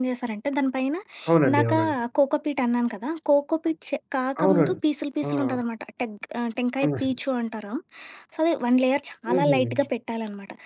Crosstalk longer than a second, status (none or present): none